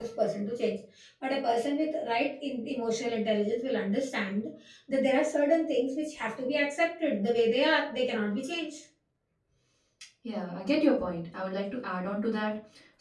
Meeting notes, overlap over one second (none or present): none